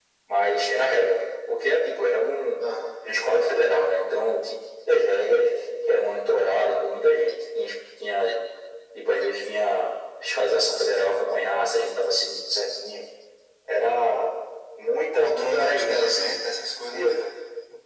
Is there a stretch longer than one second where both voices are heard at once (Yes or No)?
Yes